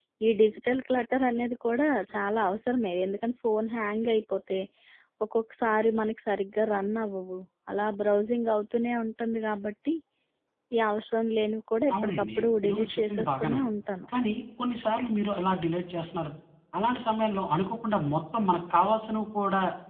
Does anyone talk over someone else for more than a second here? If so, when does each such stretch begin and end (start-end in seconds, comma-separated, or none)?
12.0-13.7